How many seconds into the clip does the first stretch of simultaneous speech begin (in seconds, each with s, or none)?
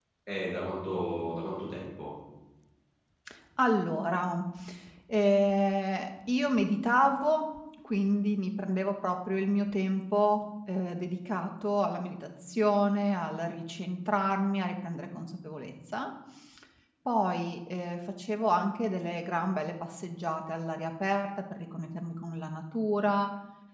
none